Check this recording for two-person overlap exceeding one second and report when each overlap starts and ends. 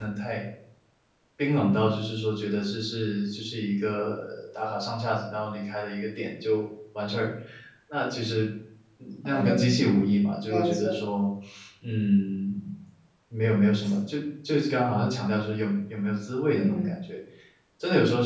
none

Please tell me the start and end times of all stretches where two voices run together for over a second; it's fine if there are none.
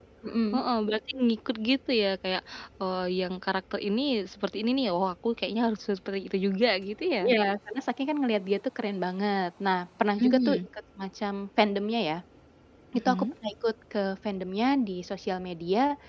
none

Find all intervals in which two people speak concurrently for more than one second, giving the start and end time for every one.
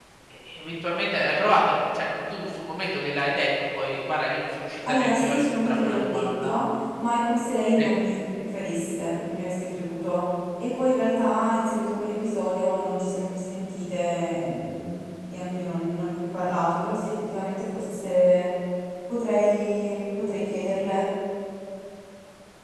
4.9-6.6

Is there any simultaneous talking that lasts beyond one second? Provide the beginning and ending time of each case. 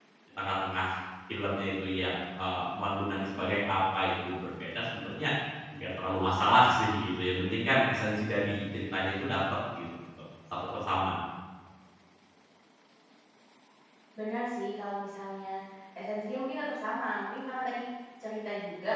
none

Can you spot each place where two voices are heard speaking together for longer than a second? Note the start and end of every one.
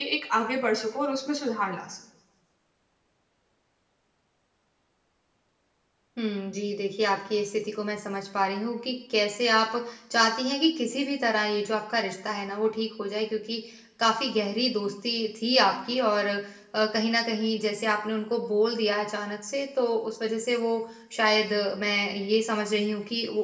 none

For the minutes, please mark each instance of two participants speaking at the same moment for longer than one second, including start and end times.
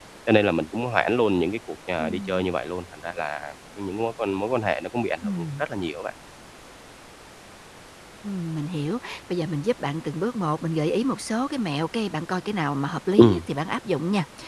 none

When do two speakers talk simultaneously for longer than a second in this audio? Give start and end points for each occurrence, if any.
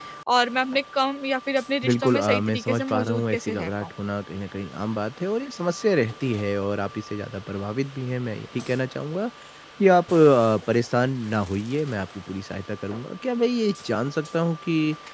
1.8-3.9

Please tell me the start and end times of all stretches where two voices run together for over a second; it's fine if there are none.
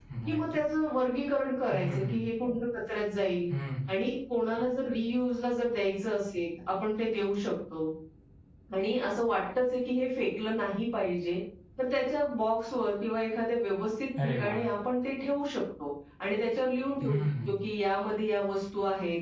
none

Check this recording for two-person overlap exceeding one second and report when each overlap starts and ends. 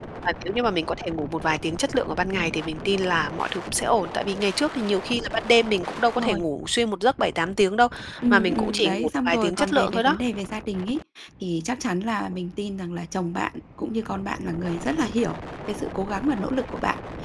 8.3-10.2

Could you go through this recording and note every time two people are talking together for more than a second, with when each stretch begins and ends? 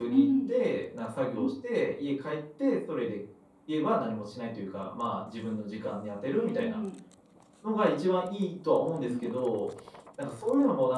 none

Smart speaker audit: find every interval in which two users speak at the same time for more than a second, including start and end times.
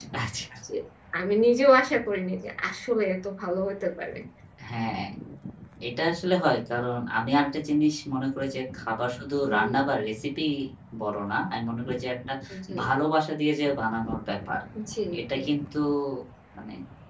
none

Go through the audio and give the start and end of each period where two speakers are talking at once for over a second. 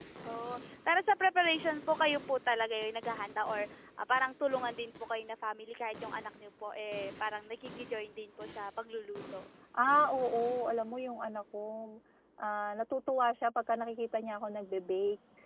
none

